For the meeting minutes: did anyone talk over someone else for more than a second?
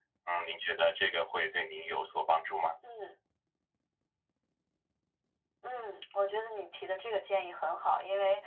No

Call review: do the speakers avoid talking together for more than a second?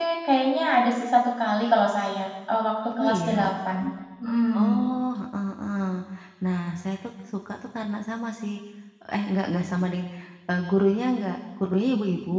Yes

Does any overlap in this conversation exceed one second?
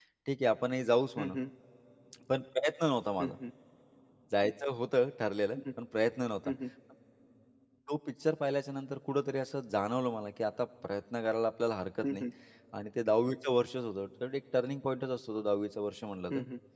No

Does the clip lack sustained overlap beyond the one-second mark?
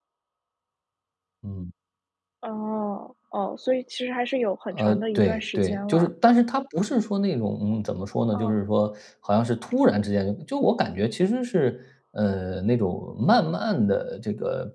No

